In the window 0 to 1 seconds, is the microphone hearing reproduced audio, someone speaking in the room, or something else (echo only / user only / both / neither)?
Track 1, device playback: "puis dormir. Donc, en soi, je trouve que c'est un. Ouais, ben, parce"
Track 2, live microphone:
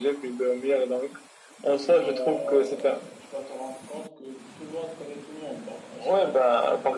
echo only